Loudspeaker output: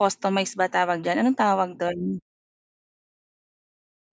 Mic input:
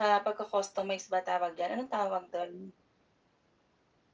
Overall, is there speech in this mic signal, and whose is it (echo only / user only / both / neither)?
echo only